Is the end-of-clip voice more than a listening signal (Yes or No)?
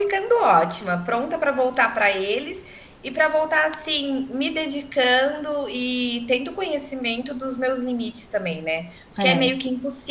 No